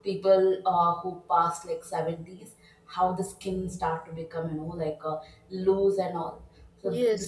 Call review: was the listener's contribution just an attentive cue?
Yes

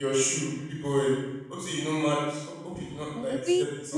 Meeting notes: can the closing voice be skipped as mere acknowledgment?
No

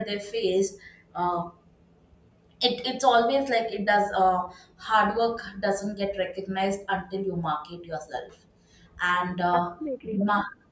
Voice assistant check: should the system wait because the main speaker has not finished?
Yes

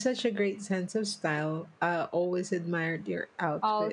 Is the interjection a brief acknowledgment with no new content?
No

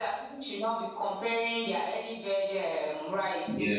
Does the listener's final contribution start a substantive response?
Yes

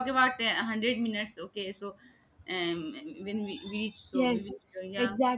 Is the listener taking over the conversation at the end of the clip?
Yes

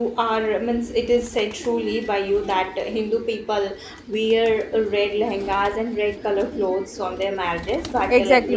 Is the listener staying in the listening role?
No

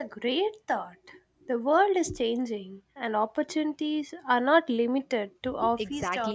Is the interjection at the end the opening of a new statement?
Yes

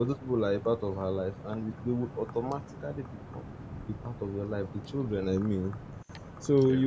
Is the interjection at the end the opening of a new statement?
No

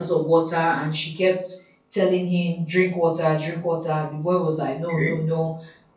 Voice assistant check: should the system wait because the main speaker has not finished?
Yes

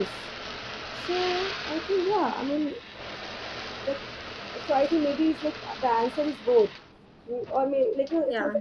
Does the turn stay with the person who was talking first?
Yes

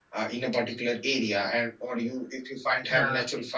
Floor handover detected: No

